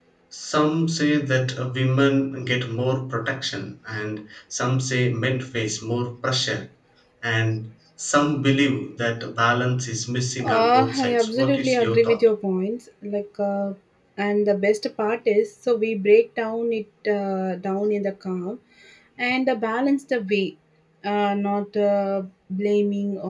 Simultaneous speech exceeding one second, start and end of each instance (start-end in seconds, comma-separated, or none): 10.4-12.2